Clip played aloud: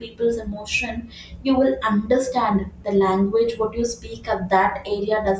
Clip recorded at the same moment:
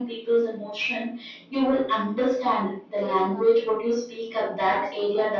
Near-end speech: present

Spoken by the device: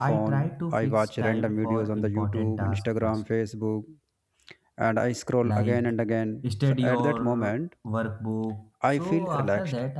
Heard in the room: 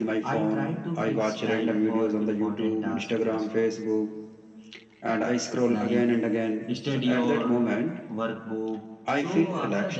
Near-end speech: none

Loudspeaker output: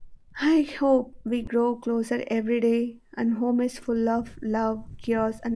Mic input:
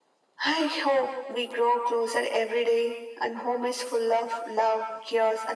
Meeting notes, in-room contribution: none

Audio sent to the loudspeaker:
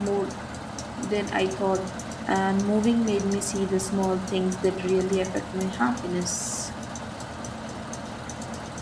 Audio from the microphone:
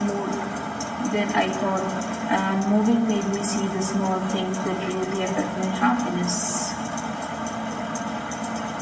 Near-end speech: none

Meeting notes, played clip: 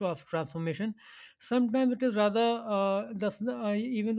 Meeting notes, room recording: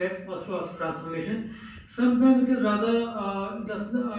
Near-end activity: none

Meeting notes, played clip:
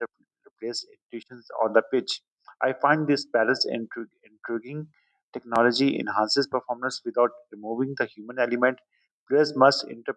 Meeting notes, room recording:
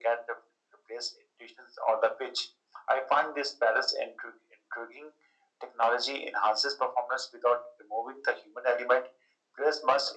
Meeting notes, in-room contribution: none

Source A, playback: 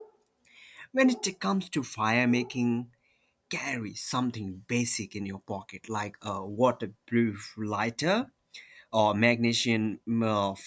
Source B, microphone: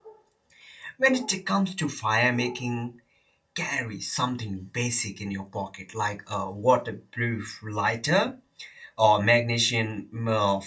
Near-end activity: none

